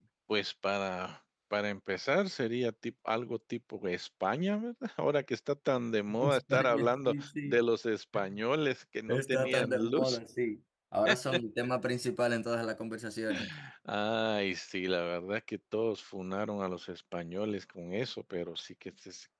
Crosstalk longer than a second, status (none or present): present